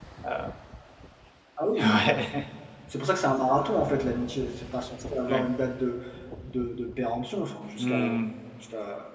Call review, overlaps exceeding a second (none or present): none